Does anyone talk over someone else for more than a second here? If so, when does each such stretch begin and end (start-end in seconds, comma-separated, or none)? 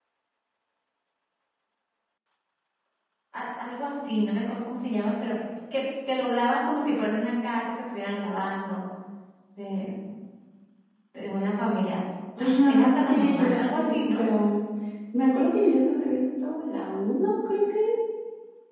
12.4-14.2